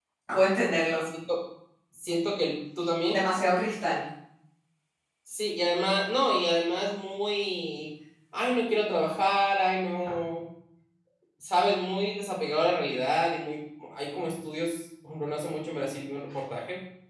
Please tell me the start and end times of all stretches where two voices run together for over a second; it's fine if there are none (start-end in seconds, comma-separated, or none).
none